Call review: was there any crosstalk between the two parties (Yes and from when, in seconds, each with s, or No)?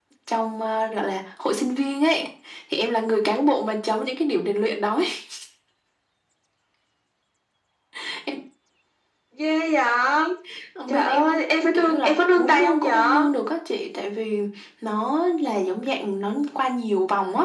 Yes, from 10.9 s